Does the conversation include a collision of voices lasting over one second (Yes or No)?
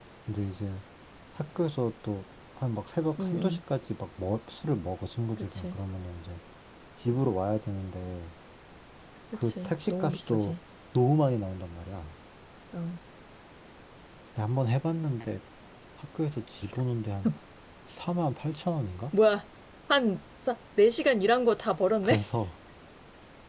Yes